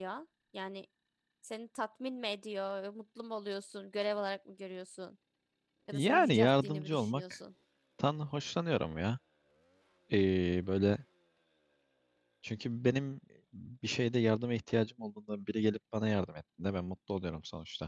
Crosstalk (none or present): present